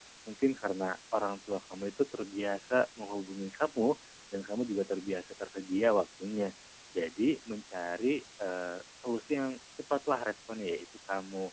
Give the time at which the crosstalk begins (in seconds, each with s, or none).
none